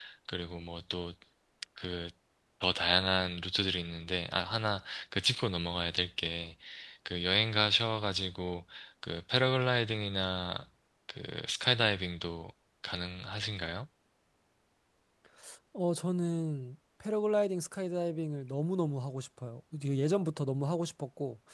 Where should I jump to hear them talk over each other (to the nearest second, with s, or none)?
none